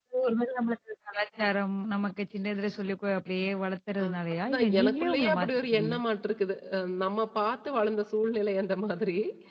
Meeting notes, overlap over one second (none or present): present